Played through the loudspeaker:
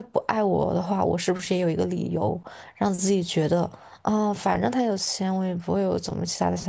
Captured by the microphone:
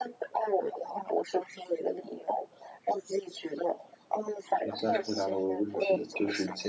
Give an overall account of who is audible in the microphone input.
both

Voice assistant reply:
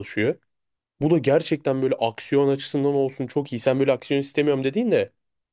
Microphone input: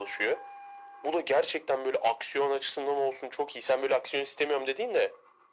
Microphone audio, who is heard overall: echo only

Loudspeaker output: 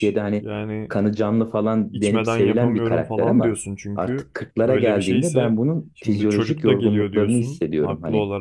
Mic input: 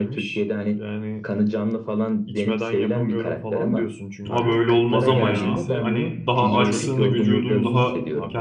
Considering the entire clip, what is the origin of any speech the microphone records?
both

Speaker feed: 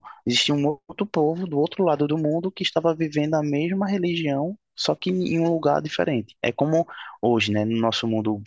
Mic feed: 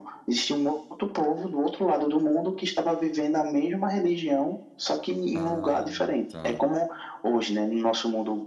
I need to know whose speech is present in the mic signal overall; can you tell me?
both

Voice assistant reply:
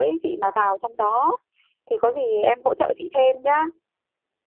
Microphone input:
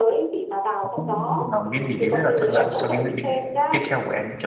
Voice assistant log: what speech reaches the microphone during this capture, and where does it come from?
both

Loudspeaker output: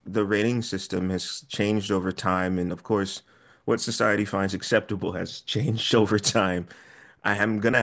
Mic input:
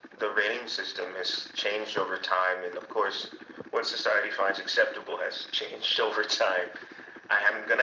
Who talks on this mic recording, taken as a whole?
echo only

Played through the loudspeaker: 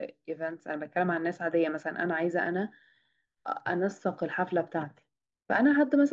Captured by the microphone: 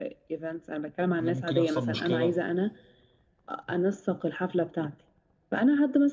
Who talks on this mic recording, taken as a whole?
both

